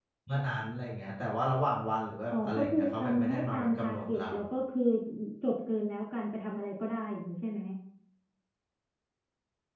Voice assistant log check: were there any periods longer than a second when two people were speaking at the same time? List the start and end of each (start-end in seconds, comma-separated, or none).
2.3-4.2